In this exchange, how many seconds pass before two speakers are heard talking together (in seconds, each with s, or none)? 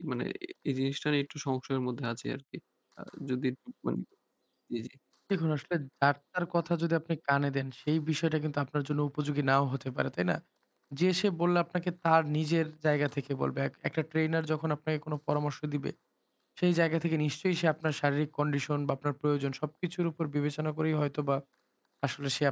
none